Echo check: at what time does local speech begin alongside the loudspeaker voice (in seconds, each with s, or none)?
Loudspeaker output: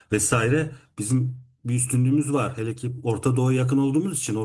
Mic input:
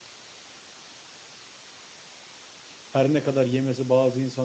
2.9 s